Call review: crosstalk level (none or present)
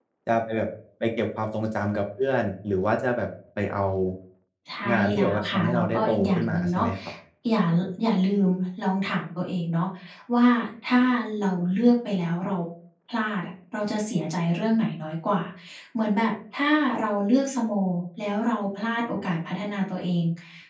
present